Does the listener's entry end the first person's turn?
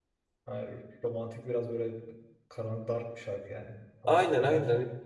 Yes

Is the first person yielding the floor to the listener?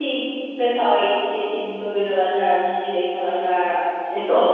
Yes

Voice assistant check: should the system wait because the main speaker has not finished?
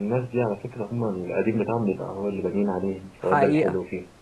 No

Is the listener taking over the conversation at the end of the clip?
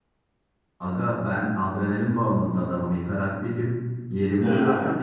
No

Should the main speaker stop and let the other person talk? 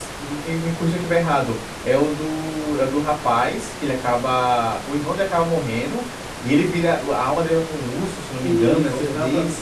Yes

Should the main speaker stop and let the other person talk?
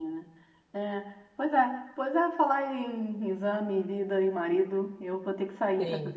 No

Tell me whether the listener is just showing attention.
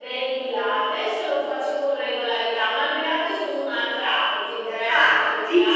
No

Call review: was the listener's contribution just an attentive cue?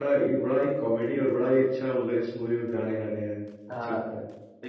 No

